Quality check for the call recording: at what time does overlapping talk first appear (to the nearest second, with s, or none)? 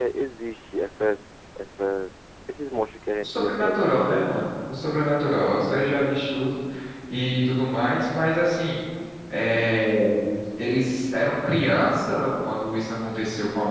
3 s